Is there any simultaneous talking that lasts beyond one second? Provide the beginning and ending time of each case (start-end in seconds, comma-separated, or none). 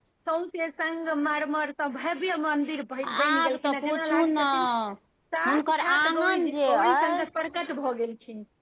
3.3-4.5, 5.5-7.3